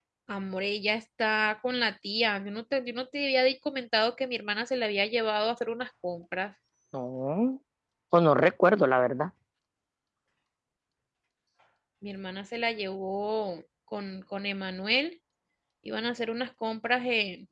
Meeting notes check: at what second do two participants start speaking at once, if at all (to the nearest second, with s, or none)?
none